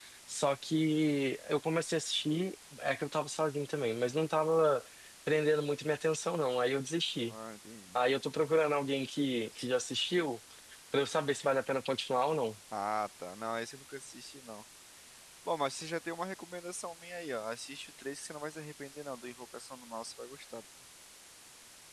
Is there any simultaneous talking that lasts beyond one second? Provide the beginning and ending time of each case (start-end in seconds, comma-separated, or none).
none